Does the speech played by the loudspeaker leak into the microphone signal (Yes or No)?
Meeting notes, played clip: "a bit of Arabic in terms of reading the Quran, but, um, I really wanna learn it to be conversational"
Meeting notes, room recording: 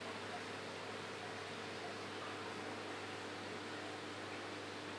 No